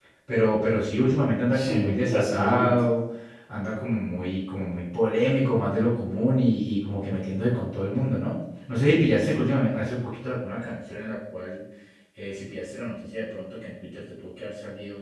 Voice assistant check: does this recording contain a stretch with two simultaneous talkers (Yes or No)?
Yes